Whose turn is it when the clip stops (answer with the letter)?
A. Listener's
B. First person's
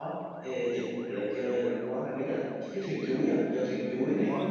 A